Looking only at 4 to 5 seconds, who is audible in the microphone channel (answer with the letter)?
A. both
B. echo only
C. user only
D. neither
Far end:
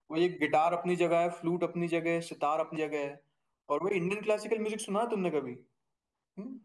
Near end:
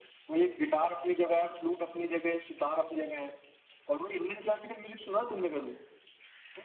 B